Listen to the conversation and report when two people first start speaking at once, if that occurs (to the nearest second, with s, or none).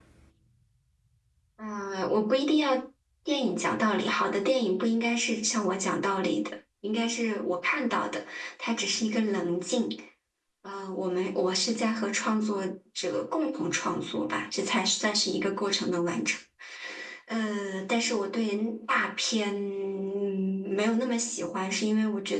none